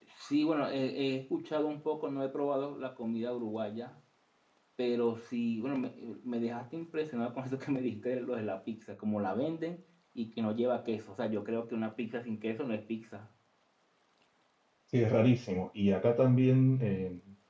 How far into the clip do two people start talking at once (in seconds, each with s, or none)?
none